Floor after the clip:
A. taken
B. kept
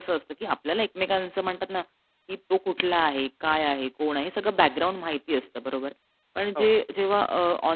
B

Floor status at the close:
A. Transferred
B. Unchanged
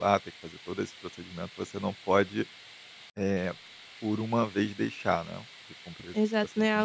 A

